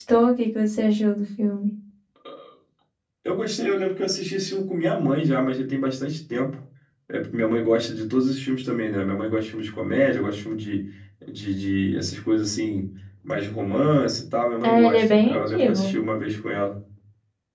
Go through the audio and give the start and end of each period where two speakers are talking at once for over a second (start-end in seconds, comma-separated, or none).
14.6-15.9